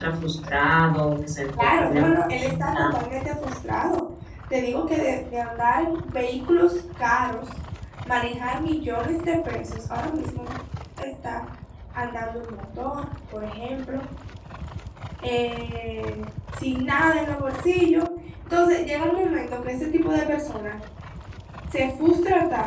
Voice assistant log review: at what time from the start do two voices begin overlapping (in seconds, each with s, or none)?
1.6 s